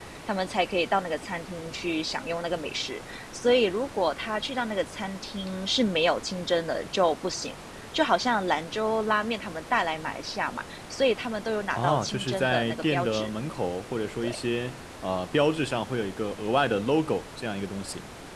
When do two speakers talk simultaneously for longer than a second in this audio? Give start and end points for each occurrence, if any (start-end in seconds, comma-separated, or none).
11.7-13.3